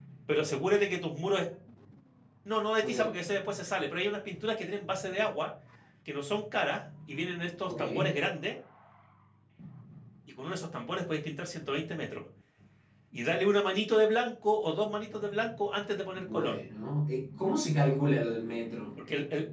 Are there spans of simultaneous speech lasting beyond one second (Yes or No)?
No